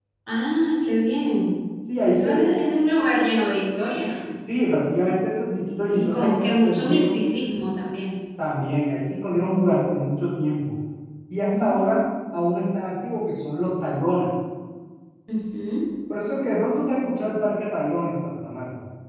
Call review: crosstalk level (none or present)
present